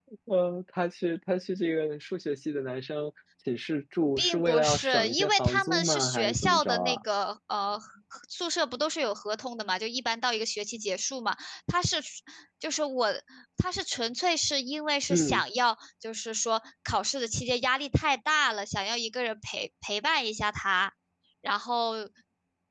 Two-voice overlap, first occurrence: 4.2 s

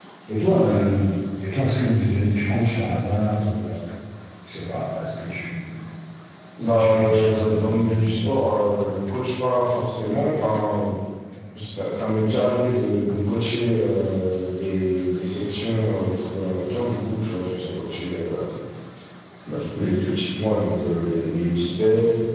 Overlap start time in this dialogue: 6.6 s

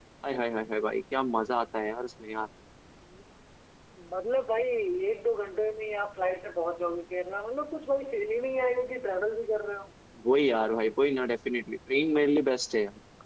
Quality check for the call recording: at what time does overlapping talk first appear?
none

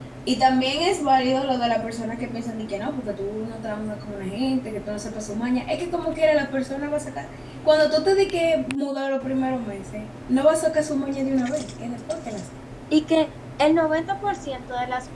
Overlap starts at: none

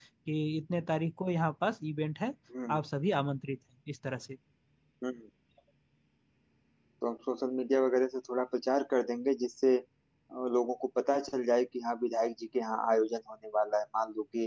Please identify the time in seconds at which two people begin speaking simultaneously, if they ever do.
none

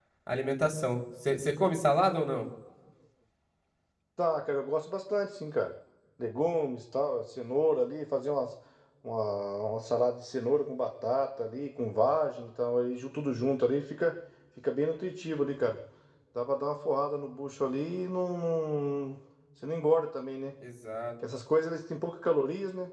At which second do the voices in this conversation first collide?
none

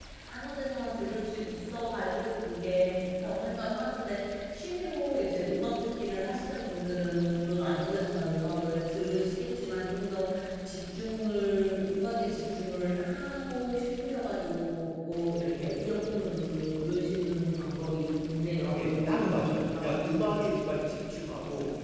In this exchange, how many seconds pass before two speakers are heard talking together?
18.7 s

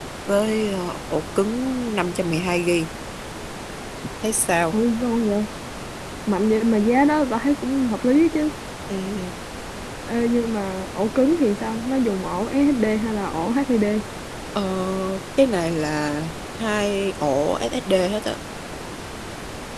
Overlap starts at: none

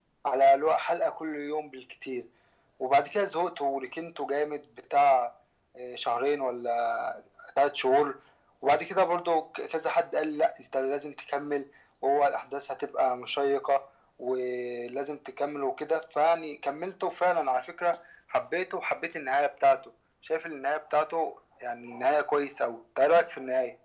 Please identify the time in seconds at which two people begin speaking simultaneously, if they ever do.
none

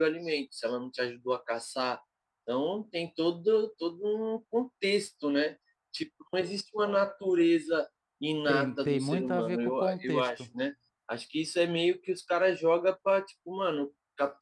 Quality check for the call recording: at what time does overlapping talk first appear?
8.5 s

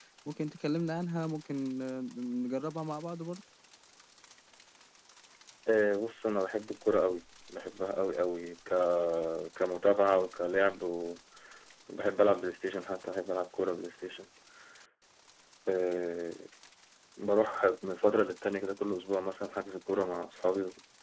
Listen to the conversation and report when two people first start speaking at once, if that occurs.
none

